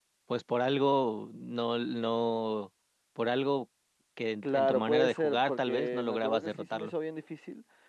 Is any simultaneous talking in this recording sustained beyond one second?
Yes, from 4.4 s

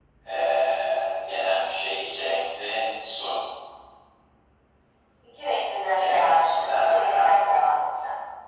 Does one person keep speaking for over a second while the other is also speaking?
Yes, from 6.0 s

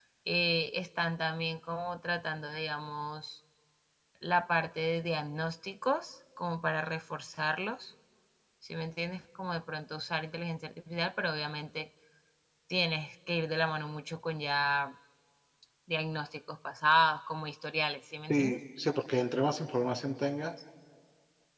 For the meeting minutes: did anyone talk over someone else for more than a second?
No

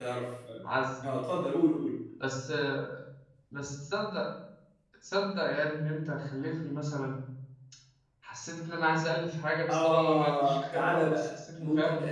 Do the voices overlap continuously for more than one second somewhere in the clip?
Yes, from 9.7 s

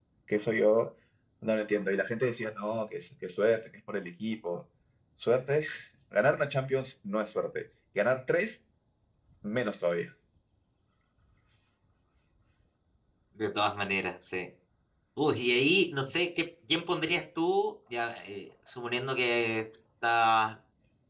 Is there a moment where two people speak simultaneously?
No

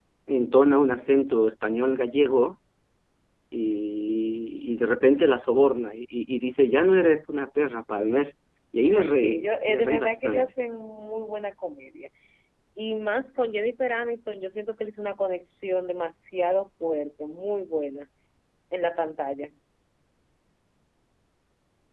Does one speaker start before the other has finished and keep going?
Yes, from 8.8 s

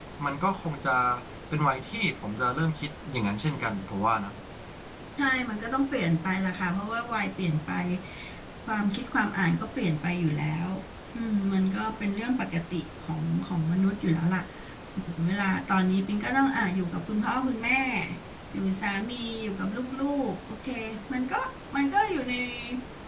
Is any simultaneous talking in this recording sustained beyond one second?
No

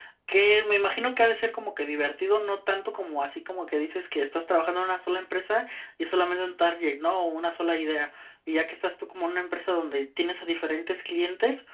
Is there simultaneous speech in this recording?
No

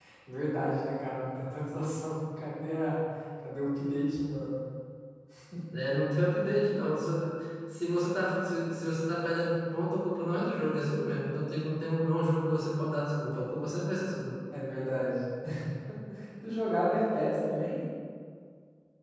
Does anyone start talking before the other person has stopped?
No

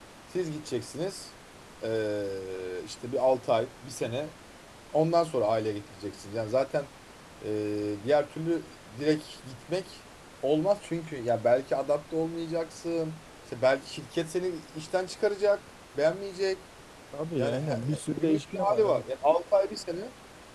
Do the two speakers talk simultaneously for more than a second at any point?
Yes, from 17.4 s

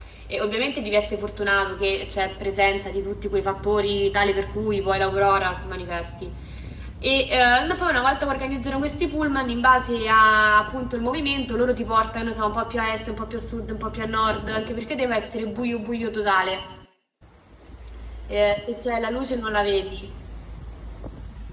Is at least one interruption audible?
No

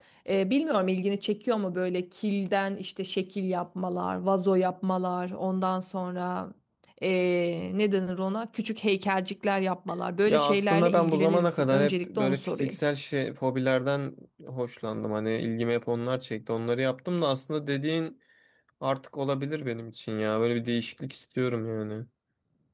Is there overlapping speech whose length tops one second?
Yes, from 10.3 s

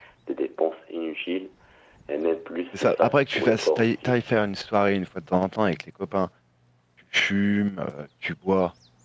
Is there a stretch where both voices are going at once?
Yes, from 2.7 s

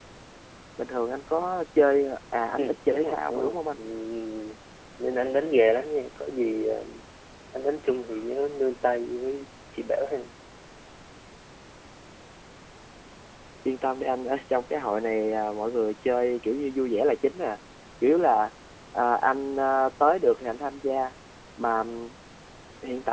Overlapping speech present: Yes, from 2.6 s

